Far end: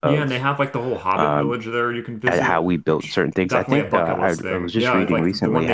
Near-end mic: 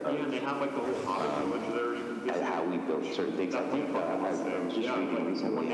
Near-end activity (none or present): none